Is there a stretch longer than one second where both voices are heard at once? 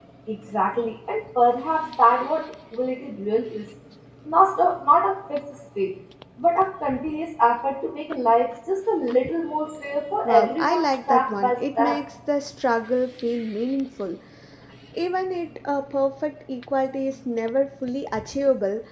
Yes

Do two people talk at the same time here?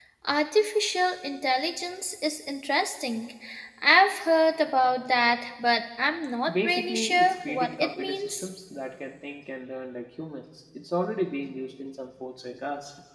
Yes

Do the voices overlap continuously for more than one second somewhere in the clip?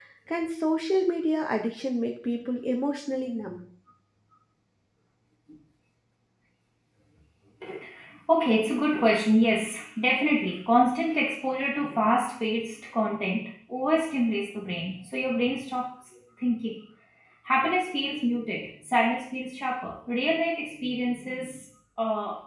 No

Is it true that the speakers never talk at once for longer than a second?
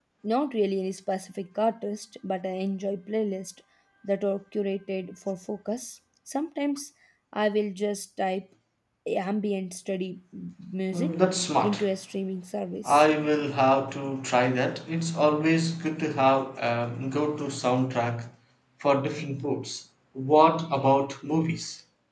Yes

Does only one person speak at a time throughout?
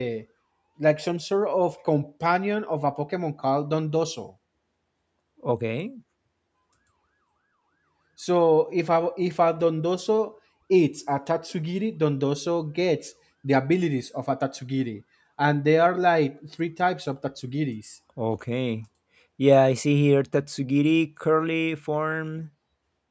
Yes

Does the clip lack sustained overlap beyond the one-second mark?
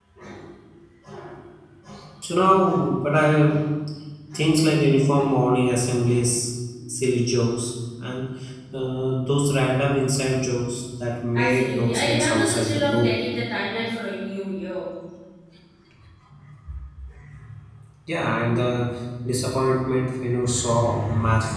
No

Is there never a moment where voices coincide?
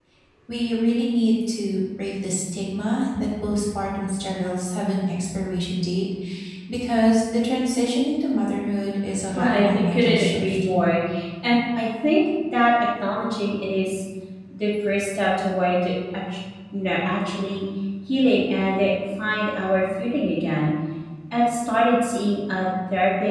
No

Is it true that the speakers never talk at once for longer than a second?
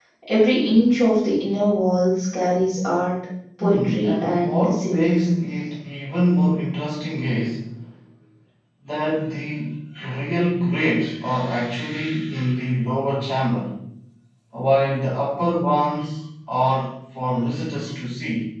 No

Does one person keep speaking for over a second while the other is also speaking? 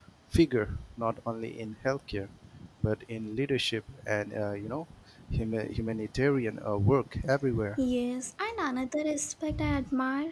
No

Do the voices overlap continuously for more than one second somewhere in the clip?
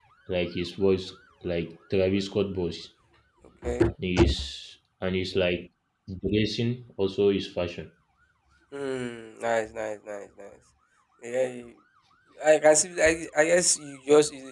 No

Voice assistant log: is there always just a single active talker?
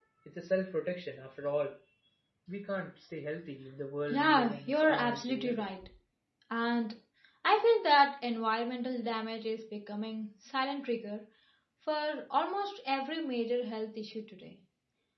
No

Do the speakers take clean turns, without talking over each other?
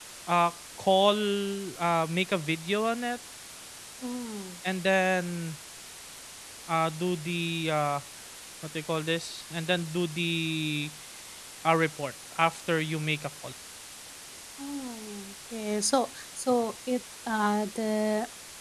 Yes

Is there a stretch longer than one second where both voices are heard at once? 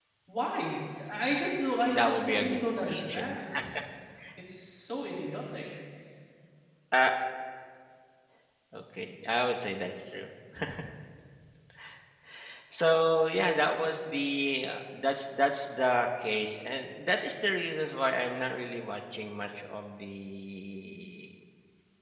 Yes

